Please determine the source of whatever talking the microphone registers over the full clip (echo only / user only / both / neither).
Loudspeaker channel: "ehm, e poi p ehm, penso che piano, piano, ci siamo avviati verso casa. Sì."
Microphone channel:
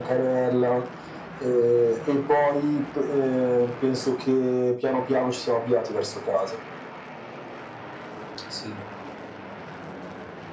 echo only